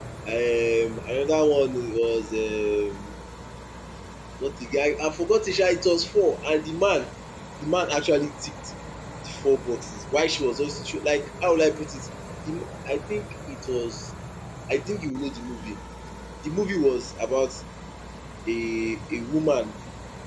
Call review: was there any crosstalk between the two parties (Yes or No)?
No